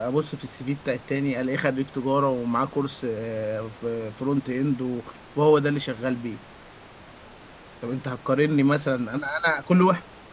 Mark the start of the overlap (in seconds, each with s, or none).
none